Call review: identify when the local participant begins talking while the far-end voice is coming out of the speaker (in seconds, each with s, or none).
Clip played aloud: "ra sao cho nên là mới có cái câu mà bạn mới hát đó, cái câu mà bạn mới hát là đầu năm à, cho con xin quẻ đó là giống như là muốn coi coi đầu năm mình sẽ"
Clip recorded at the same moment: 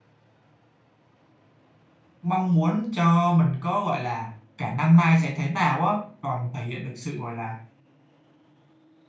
2.2 s